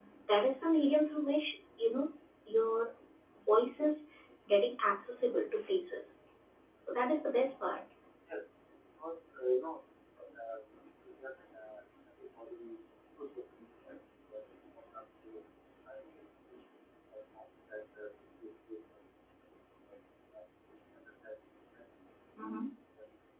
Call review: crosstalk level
none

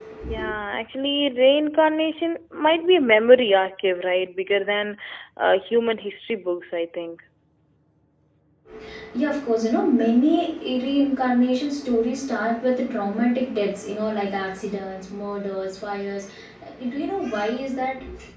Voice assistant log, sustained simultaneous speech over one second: none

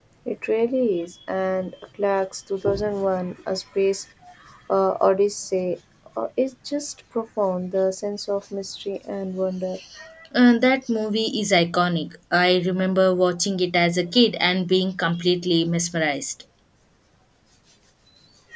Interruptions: none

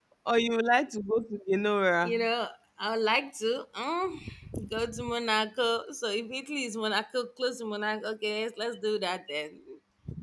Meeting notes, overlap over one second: none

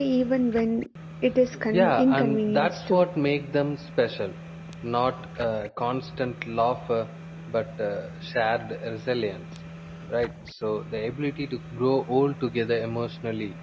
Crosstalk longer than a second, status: present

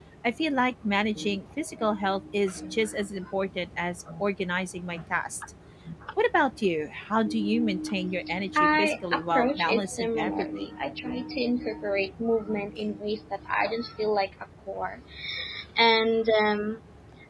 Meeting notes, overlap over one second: present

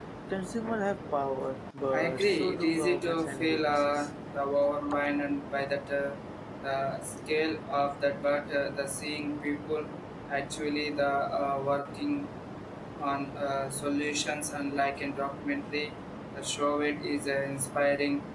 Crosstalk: present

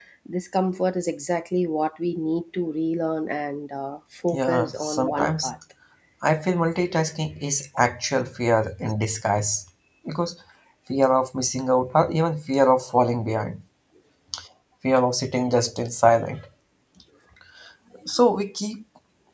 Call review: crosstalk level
present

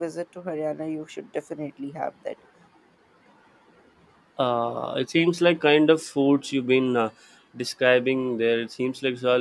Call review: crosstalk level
none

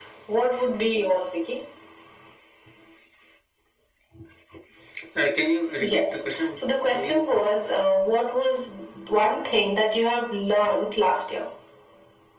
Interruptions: present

